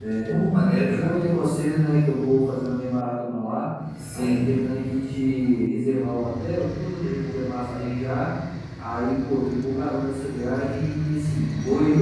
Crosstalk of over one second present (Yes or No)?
No